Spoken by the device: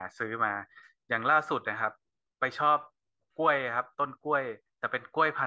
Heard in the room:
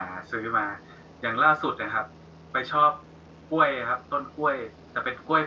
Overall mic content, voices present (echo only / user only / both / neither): echo only